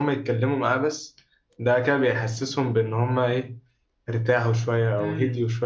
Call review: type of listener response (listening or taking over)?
taking over